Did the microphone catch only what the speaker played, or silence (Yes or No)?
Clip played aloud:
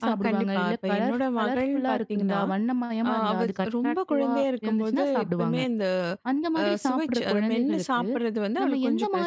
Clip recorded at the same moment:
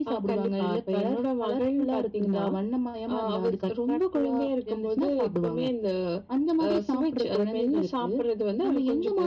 Yes